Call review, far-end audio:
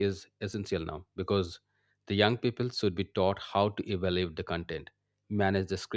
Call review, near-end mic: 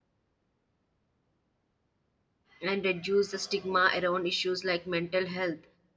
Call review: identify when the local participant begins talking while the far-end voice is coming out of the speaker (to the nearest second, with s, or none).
3 s